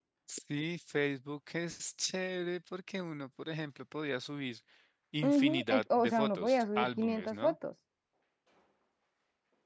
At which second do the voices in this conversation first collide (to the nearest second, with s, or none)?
5 s